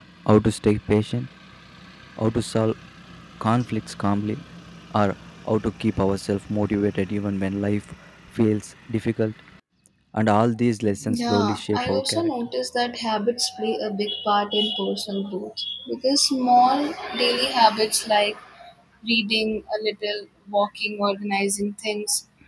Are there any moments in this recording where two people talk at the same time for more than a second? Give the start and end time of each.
11.0-12.3

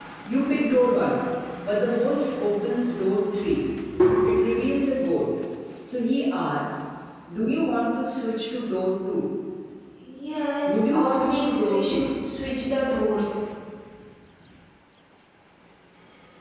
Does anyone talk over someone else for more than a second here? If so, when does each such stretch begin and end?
10.7-12.1

